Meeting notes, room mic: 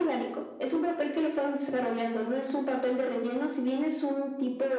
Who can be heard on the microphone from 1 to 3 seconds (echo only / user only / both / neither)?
echo only